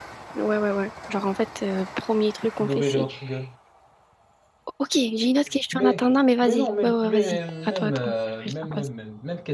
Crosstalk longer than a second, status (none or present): present